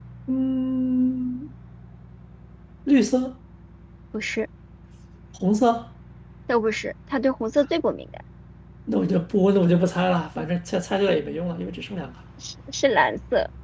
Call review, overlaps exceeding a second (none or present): none